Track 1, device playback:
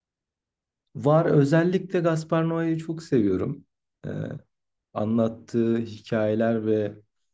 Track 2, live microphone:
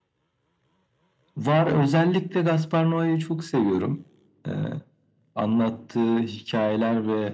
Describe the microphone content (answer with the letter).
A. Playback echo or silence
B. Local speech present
A